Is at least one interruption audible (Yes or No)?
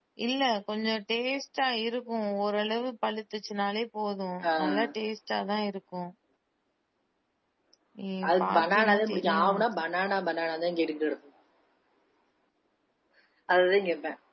Yes